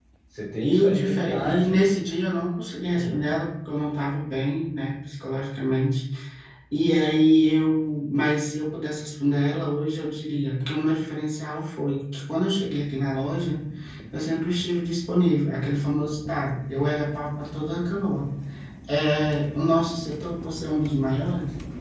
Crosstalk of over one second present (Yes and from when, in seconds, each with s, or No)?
Yes, from 0.6 s